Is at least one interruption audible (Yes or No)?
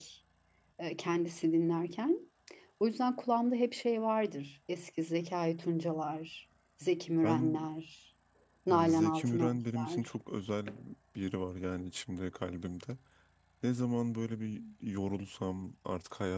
Yes